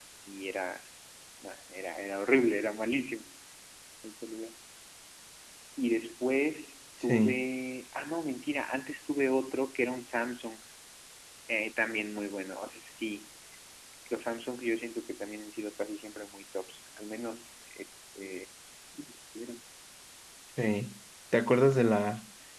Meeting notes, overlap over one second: none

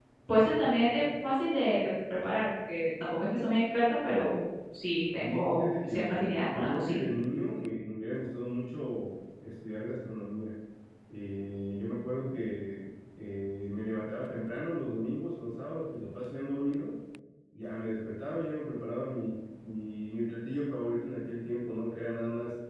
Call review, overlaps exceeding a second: present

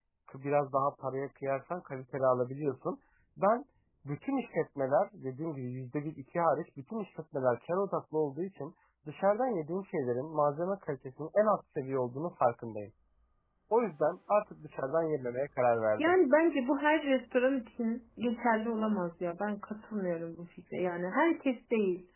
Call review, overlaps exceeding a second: none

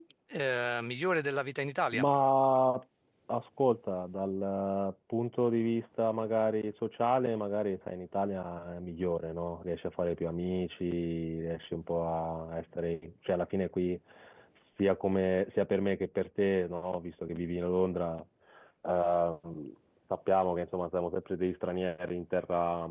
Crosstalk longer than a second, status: none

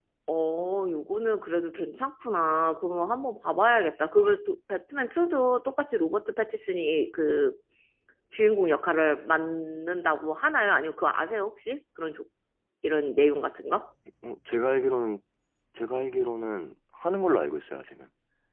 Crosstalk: none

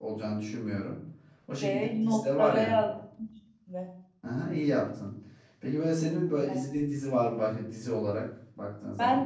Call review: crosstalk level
present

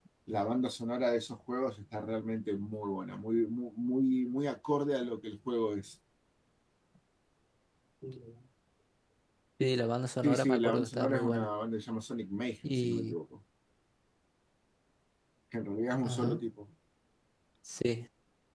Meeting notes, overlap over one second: present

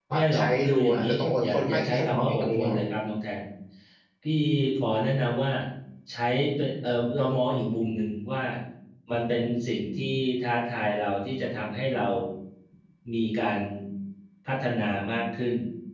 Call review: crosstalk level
present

